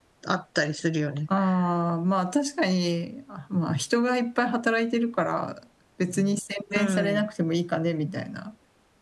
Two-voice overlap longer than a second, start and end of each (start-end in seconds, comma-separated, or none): none